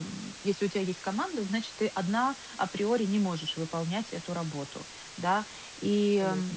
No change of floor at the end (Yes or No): Yes